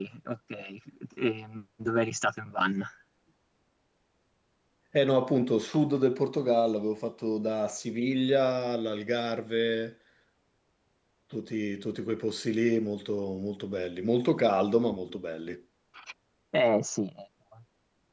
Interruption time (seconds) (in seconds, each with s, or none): none